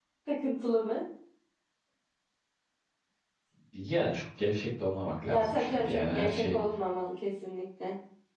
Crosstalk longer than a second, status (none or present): present